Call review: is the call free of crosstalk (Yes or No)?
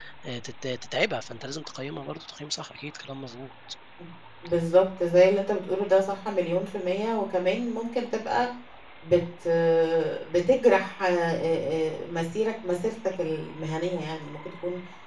Yes